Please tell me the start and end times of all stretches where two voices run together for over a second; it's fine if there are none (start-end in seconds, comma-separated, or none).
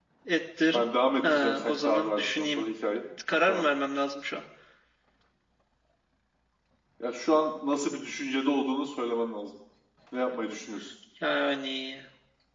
1.2-2.7